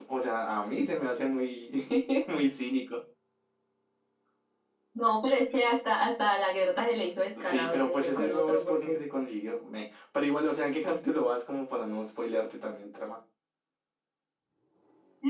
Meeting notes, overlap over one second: present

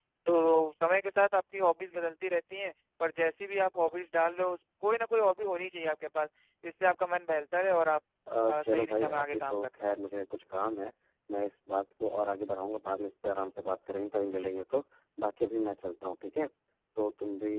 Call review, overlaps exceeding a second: present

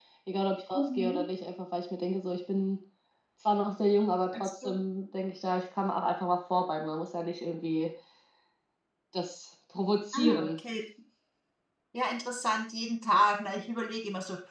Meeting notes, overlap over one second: none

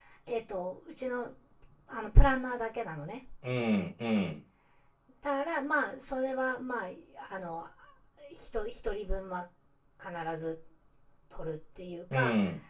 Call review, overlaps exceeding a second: none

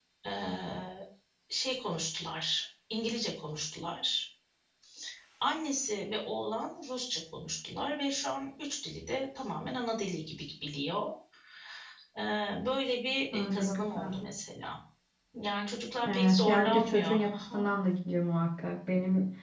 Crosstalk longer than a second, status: present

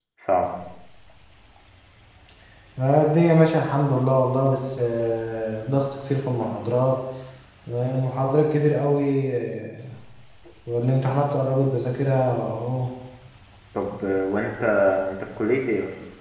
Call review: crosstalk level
none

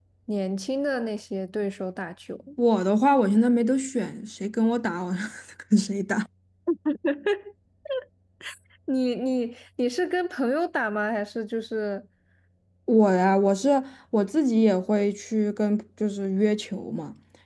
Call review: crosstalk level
none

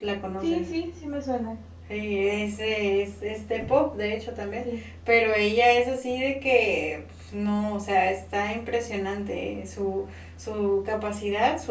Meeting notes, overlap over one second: none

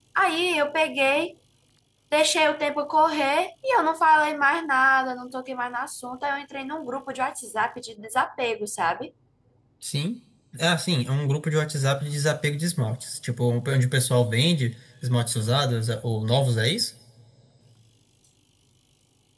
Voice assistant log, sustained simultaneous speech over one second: none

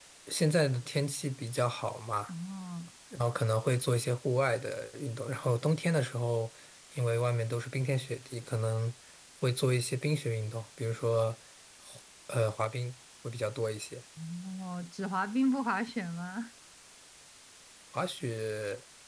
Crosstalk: none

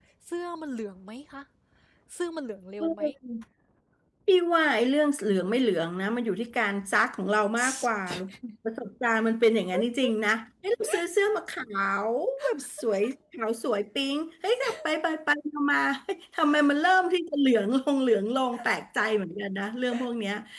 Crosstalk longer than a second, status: none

